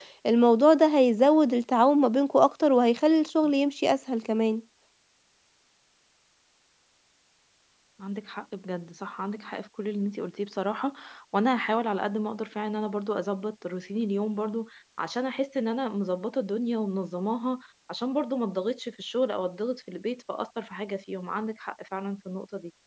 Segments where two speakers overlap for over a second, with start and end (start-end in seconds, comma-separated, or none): none